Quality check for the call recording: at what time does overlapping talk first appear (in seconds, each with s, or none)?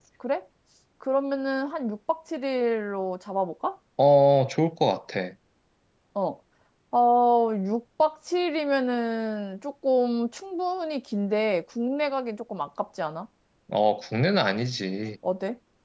none